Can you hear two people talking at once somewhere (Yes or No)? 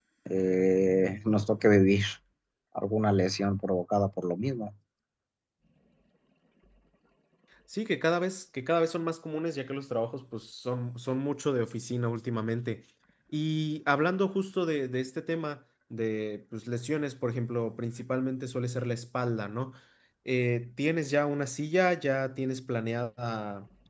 No